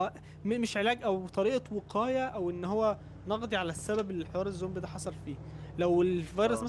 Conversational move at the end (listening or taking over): listening